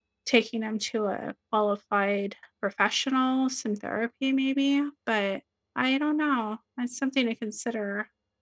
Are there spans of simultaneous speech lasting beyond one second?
No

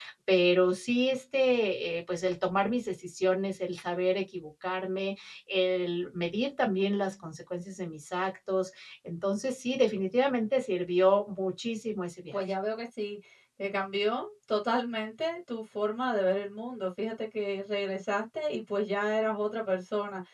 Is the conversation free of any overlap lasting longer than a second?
Yes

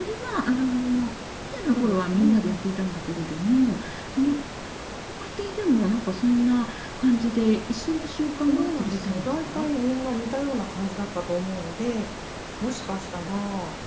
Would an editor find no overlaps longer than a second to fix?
No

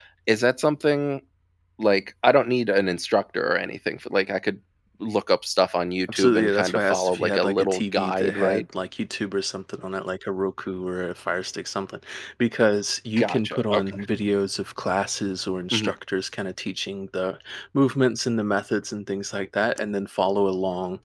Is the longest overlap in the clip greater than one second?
Yes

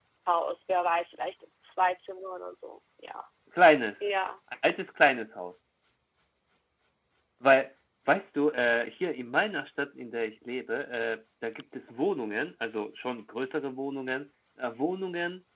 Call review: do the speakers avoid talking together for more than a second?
Yes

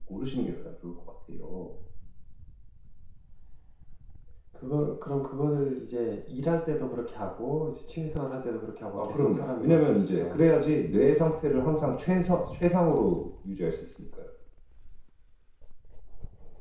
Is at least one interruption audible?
Yes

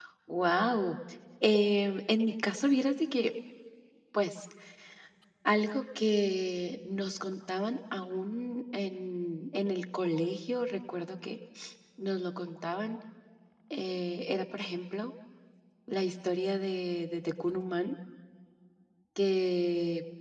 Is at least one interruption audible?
No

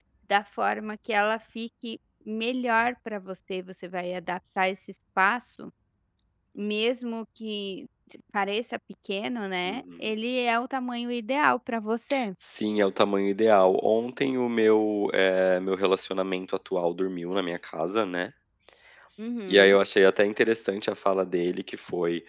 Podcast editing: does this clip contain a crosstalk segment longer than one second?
No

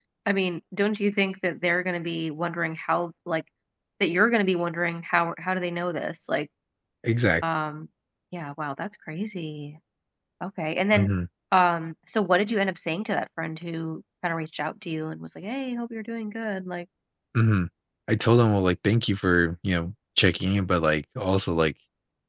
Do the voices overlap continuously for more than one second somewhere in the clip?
No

